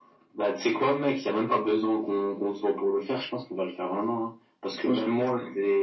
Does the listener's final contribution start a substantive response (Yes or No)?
No